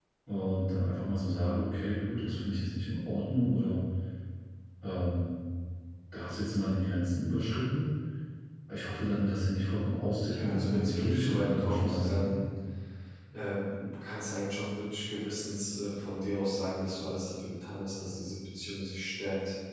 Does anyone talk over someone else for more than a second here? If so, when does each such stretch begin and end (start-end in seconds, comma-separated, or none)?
10.3-12.3